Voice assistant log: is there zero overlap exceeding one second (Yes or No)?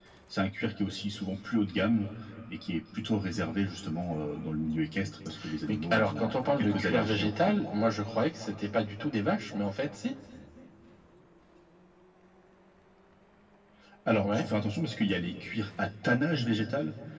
No